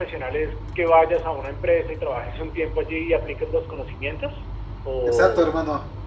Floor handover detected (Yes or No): Yes